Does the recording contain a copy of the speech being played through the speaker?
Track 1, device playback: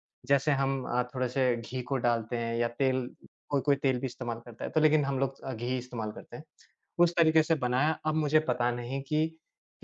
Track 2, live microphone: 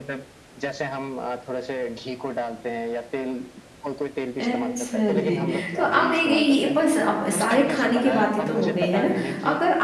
Yes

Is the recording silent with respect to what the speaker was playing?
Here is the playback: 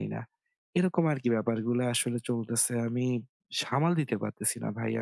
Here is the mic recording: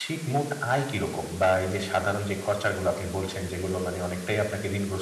Yes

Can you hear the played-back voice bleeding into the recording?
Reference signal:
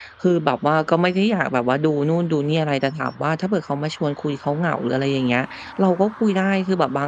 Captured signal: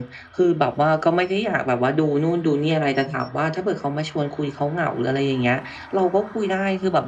Yes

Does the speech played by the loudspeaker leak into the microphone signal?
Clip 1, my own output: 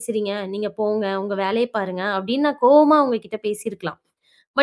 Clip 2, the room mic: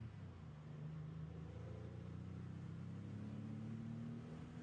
No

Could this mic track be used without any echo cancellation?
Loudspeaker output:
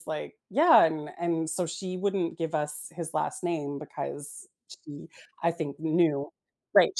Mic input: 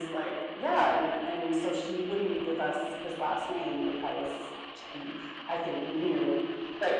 No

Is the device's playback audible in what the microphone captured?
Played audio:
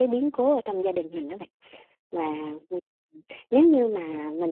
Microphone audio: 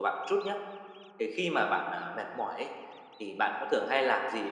No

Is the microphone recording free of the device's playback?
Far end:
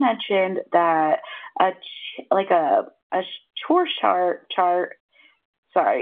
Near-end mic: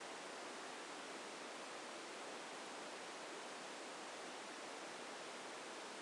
Yes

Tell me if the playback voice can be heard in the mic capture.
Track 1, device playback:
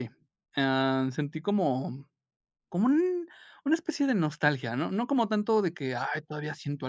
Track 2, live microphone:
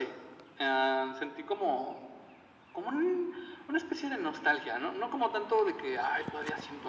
Yes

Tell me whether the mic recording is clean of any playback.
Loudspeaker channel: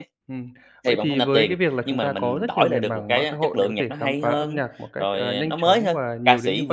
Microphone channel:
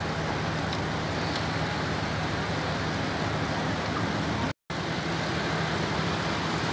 Yes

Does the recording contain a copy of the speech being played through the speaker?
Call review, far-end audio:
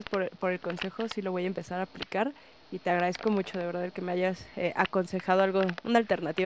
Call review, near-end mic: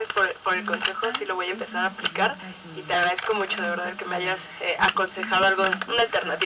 Yes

